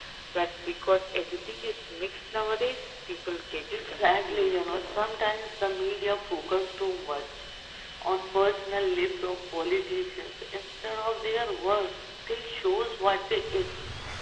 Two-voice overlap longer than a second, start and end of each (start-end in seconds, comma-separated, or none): 3.7-5.0